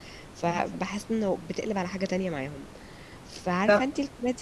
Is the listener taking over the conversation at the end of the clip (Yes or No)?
No